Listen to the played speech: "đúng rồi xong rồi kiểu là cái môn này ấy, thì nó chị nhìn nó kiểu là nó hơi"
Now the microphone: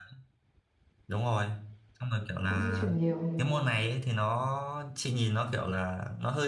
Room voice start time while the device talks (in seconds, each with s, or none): 2.5 s